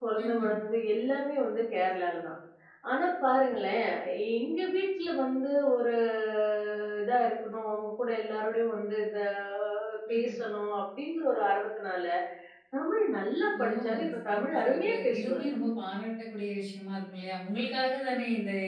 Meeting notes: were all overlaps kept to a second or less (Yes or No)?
No